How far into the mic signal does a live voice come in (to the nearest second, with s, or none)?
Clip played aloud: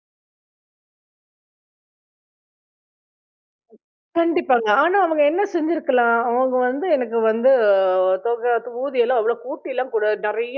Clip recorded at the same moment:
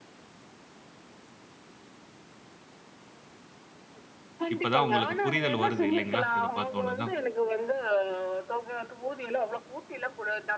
5 s